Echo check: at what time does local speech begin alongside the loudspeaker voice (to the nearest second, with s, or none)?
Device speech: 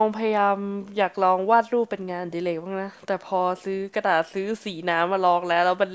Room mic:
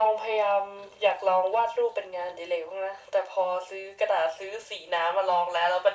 none